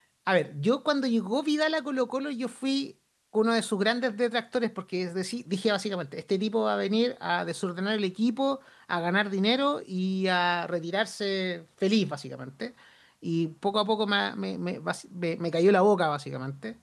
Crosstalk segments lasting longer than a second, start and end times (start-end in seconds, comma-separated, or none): none